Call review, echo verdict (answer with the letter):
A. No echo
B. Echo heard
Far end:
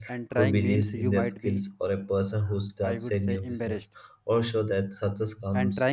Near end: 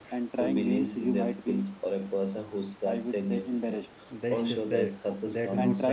B